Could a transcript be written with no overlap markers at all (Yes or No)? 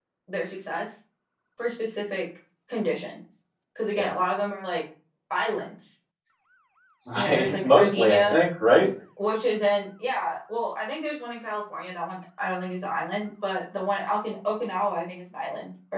No